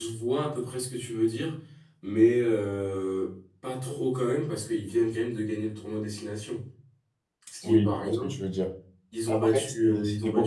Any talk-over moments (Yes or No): Yes